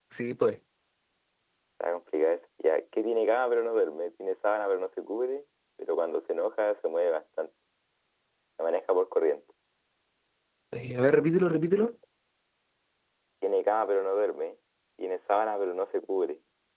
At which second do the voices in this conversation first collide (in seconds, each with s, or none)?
none